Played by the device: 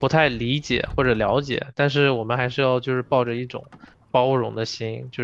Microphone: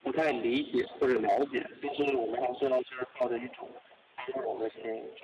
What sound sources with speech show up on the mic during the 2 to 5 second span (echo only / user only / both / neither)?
echo only